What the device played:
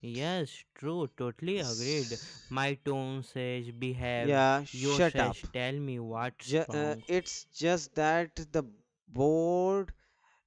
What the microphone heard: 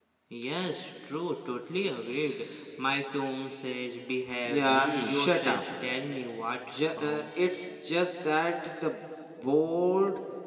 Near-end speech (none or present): present